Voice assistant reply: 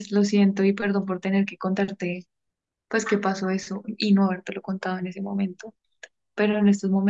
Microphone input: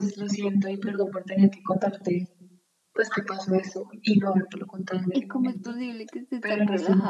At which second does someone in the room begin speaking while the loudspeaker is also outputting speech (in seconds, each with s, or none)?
5.1 s